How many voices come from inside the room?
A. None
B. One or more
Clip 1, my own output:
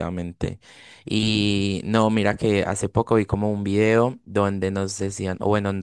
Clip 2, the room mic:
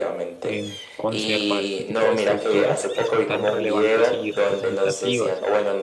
B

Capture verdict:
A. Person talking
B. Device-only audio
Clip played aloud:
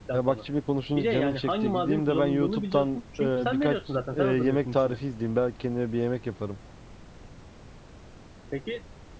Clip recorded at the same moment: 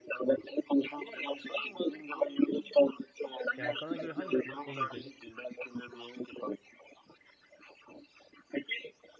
A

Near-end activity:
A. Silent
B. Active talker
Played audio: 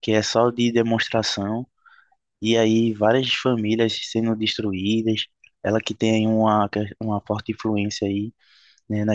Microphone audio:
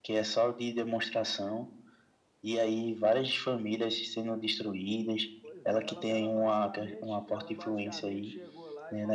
B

